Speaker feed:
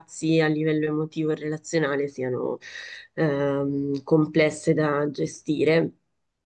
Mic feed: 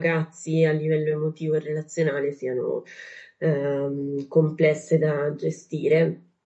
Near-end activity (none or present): none